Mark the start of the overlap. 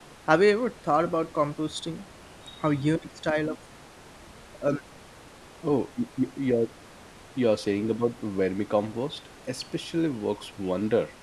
none

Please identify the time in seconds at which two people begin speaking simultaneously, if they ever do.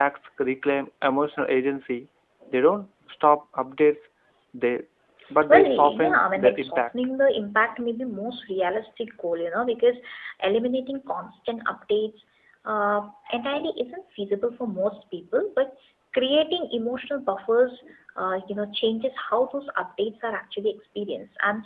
5.5 s

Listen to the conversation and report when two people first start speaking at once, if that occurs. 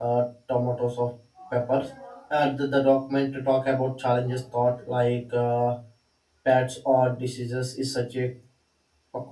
none

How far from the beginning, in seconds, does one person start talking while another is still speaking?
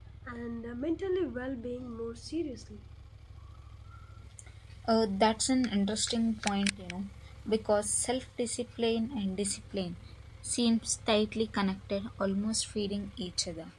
none

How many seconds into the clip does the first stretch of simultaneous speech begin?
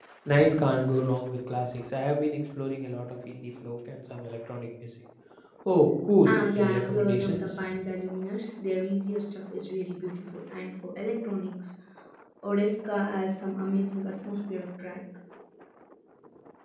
6.2 s

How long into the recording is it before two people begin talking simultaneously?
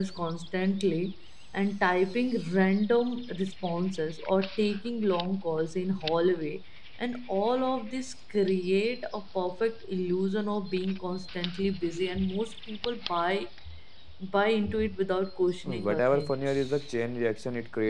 15.6 s

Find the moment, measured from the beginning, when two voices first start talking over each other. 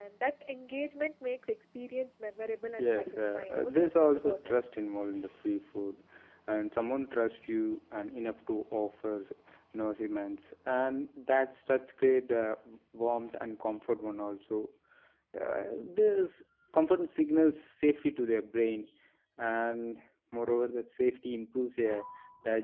2.8 s

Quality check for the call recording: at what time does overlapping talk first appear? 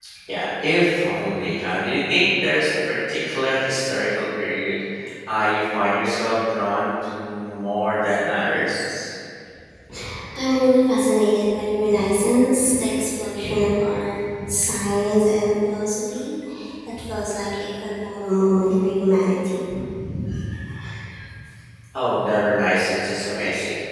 none

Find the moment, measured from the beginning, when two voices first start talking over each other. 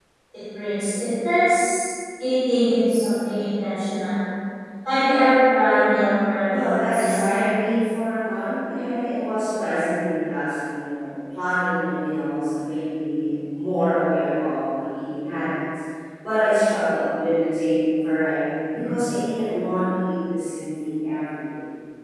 6.5 s

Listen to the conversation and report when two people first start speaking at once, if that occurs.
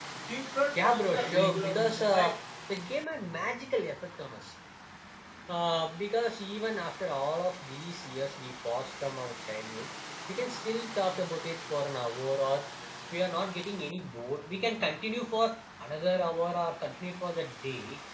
0.8 s

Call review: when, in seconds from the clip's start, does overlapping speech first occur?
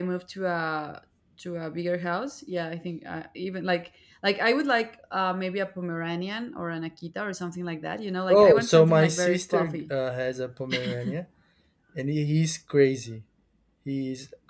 8.3 s

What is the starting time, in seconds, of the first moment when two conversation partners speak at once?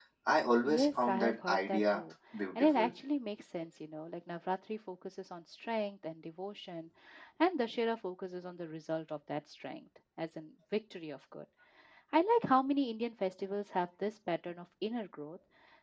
0.6 s

